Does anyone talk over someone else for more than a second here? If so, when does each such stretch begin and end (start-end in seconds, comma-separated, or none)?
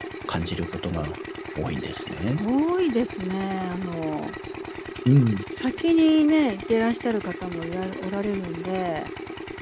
none